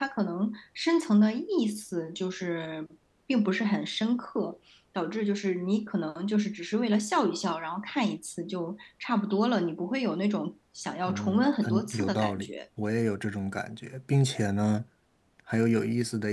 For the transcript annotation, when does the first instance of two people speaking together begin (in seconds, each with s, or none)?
11.1 s